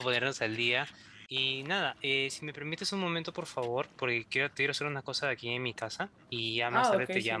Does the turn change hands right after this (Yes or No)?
Yes